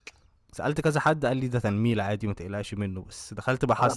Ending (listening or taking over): listening